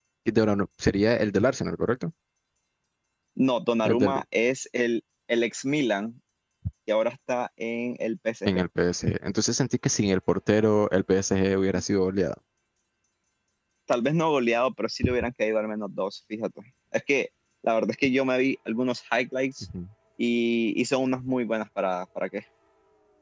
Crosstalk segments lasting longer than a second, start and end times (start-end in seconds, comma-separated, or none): none